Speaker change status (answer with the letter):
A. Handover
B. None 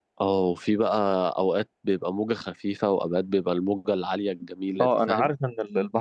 A